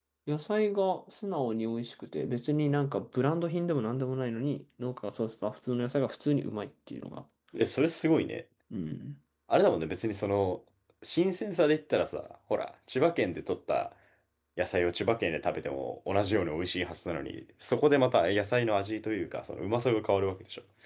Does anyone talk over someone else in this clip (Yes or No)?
No